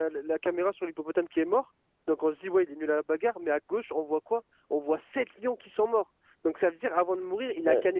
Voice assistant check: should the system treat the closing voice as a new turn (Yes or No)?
No